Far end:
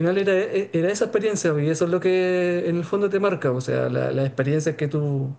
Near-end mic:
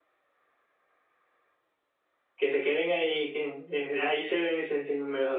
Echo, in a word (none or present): none